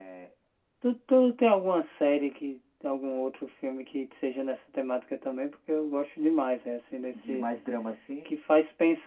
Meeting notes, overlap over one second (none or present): none